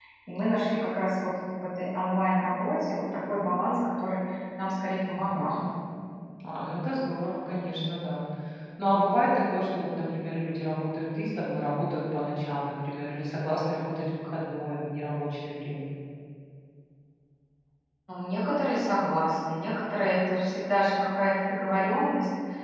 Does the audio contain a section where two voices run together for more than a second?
No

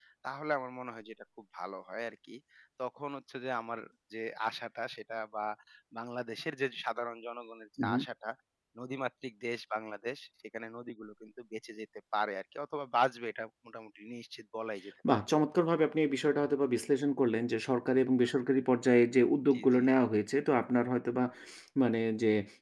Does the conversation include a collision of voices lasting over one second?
No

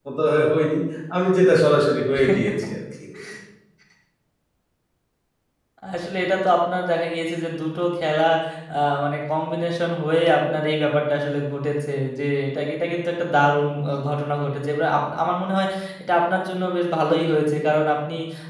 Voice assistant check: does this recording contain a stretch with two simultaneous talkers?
No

